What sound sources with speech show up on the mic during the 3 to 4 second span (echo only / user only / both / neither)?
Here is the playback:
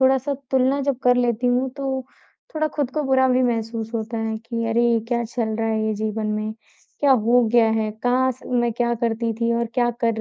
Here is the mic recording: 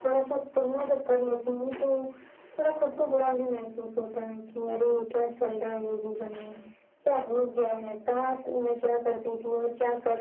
echo only